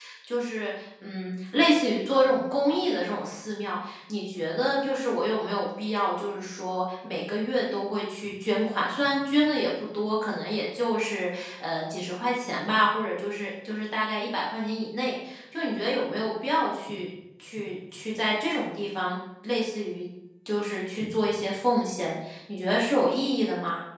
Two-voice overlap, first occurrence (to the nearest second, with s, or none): none